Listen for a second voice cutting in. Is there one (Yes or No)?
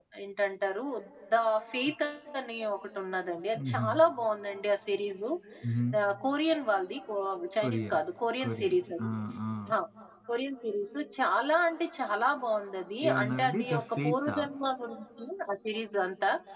Yes